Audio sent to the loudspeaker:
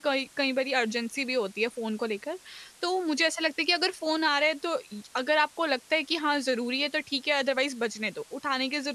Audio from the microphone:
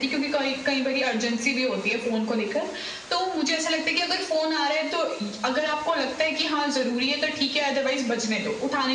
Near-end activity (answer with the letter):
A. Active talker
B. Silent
B